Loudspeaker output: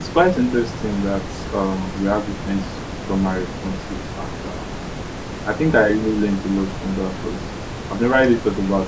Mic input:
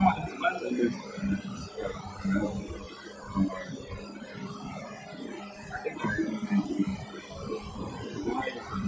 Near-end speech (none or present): none